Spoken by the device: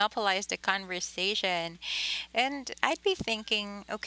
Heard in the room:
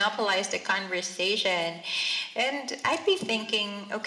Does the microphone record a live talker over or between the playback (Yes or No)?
No